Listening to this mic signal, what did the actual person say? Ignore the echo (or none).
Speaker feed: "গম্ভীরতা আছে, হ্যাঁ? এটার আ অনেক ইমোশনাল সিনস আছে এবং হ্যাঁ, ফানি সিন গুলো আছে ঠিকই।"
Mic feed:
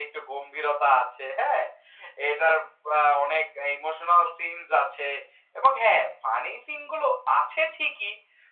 none